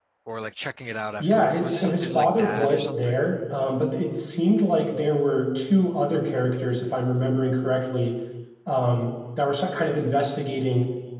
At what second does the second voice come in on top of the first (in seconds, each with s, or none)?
1.2 s